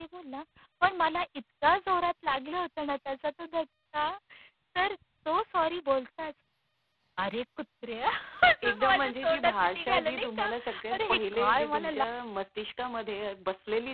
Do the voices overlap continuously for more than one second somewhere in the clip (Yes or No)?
Yes